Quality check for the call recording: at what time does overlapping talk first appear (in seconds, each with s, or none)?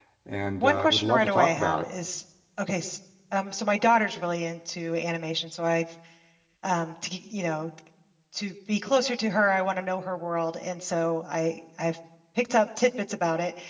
0.6 s